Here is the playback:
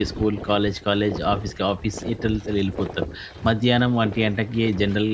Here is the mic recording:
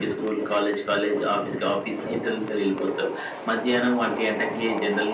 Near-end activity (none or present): none